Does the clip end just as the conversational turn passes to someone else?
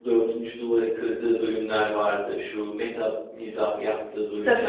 Yes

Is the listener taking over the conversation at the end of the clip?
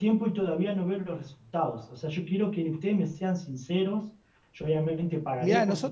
Yes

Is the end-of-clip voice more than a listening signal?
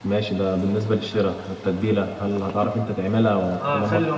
Yes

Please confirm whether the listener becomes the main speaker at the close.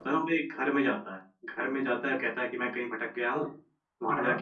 No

